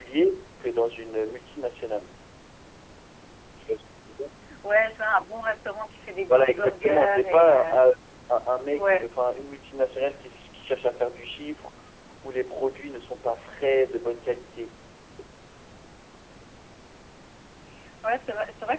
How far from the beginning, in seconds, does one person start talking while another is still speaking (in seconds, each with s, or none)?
6.3 s